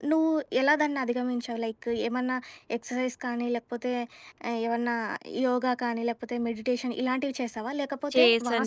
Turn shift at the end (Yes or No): No